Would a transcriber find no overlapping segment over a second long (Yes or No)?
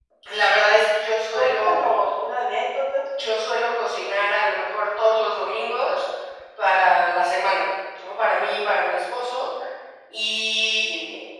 Yes